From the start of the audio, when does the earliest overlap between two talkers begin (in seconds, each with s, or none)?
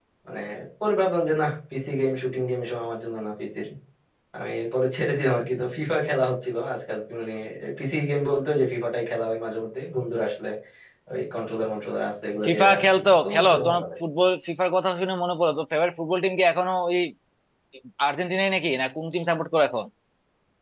12.4 s